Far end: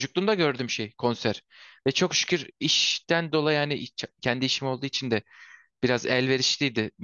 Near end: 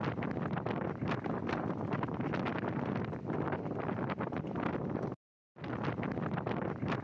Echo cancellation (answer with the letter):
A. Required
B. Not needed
B